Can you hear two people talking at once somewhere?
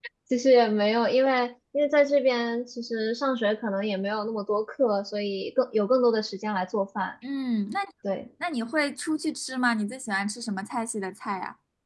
No

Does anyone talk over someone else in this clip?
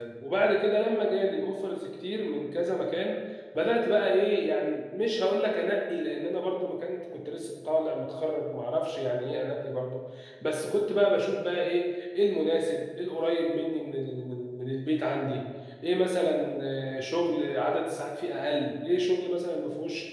No

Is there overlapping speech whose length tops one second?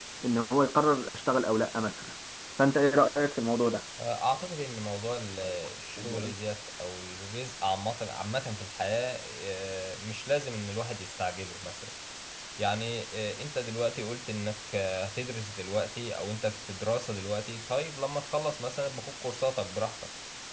No

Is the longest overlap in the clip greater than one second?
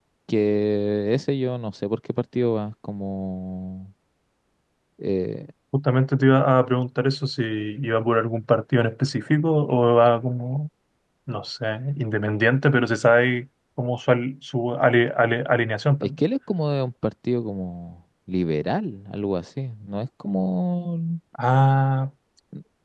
No

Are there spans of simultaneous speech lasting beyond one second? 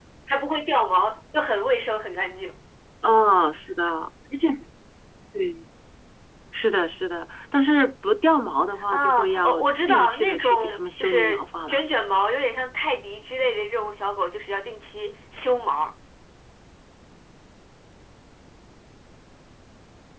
Yes, from 8.9 s

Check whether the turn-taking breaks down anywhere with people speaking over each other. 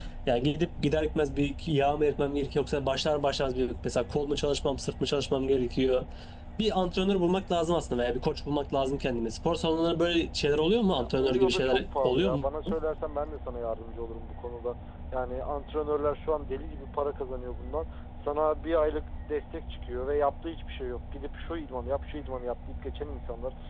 Yes, from 11.0 s

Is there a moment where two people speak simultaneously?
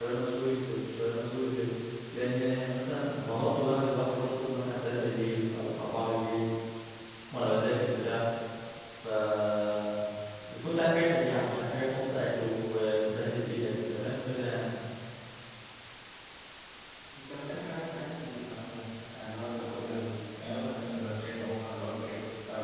No

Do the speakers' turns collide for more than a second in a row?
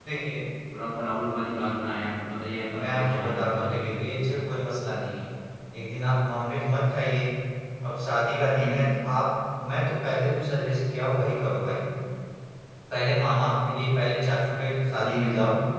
Yes, from 2.7 s

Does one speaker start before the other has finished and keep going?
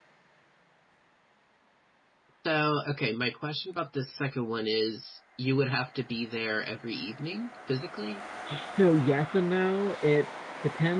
No

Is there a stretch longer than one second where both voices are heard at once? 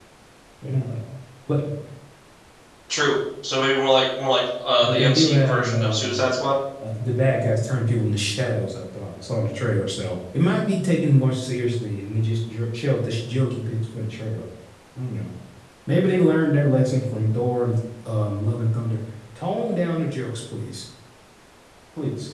Yes, from 4.8 s

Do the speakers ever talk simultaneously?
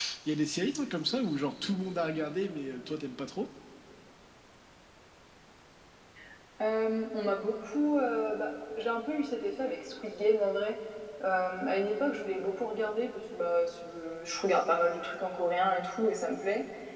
No

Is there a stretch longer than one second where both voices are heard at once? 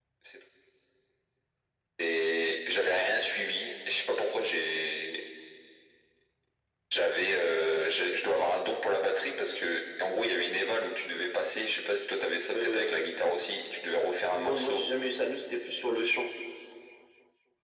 No

